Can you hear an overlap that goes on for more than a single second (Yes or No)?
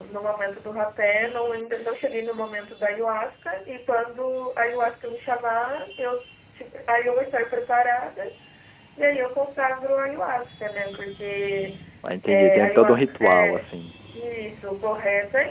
Yes